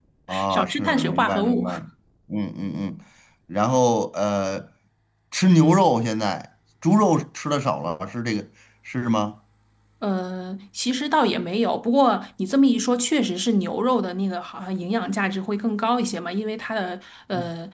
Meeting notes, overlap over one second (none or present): present